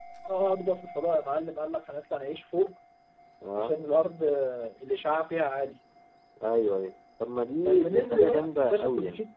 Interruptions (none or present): present